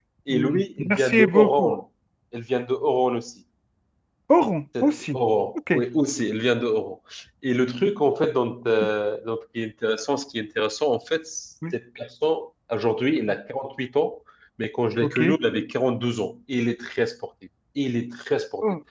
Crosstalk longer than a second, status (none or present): present